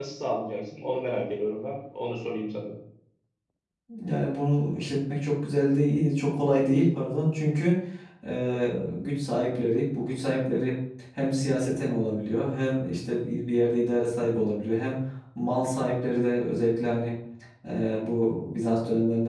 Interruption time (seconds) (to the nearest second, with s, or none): none